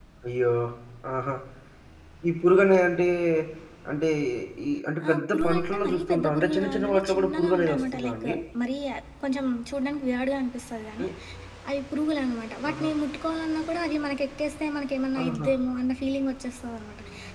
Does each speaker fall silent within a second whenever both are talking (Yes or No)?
No